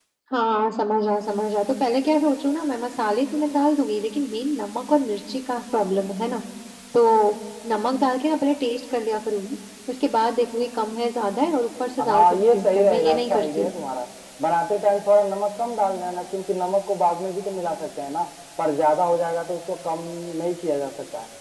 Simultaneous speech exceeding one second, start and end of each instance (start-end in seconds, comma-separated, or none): 12.0-13.7